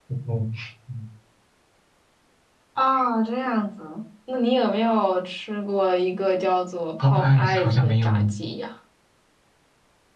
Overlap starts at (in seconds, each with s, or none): 7.0 s